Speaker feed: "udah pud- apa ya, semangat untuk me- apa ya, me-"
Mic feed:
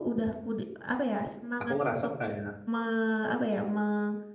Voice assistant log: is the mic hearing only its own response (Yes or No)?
No